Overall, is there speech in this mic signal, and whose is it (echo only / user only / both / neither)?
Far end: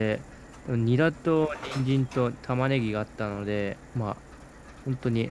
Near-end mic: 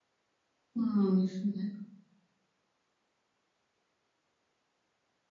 user only